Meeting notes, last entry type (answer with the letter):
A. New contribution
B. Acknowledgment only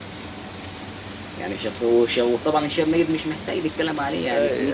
A